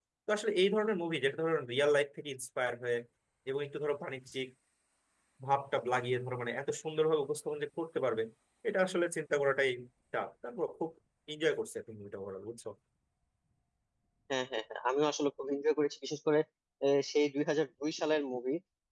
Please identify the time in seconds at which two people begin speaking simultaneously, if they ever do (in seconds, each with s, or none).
none